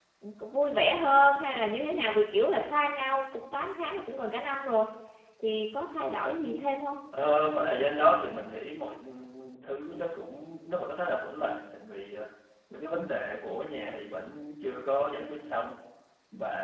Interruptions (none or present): none